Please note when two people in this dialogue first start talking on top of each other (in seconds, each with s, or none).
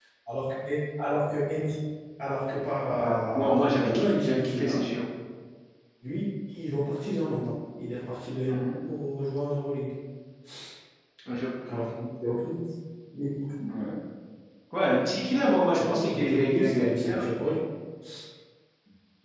2.9 s